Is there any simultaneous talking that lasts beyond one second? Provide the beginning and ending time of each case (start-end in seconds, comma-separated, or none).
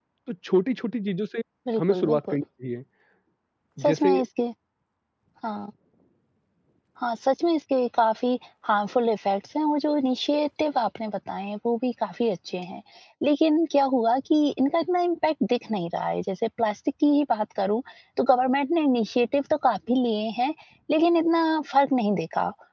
none